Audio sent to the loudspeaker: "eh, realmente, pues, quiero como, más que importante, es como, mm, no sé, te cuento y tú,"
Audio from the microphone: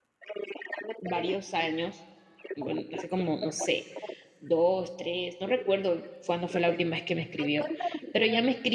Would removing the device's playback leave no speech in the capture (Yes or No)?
No